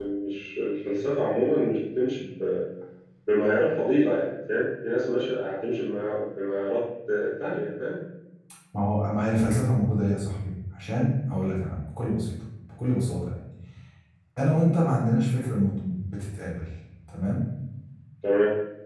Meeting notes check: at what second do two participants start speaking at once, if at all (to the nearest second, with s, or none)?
none